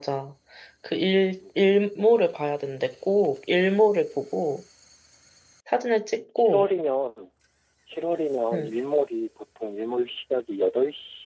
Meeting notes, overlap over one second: none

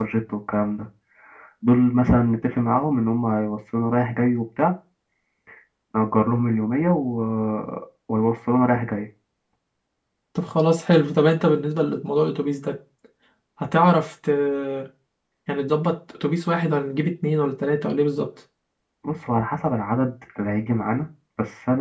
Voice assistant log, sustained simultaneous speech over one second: none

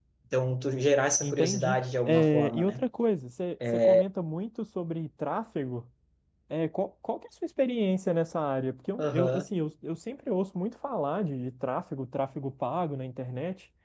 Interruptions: present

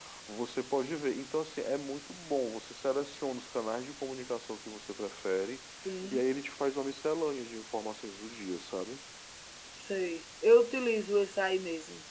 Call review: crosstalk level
none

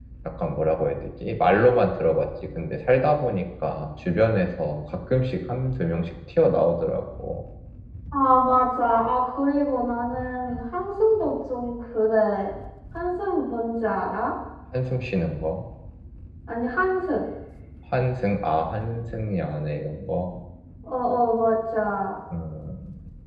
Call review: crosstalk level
none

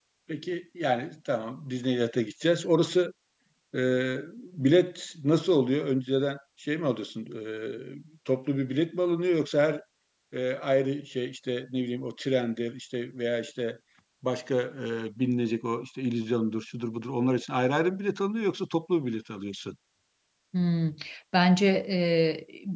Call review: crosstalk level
none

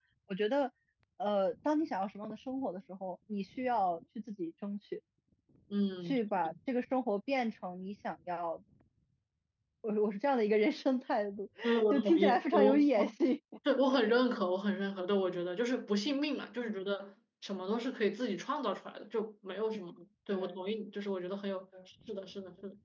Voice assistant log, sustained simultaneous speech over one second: present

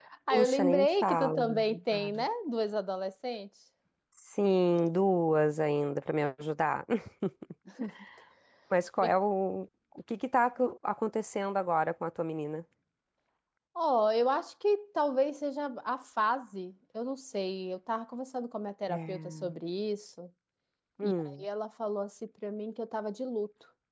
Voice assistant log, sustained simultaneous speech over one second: present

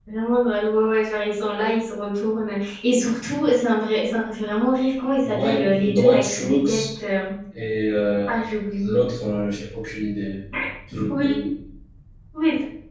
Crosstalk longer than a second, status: present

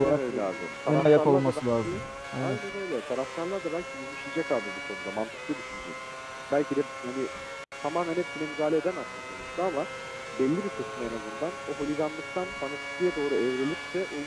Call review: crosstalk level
present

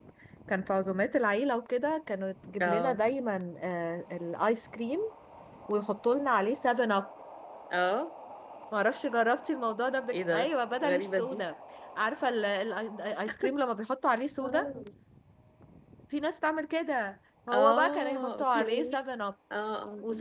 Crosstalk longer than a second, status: present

